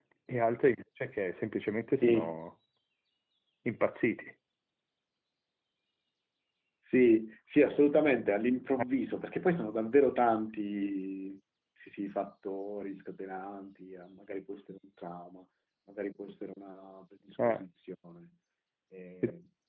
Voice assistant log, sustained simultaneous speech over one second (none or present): none